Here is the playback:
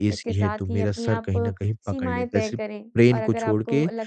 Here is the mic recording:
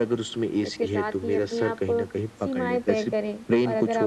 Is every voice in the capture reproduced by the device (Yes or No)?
Yes